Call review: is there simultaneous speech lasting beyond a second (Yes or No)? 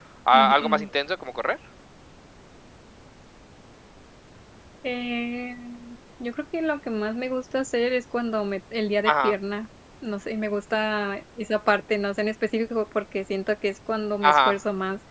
No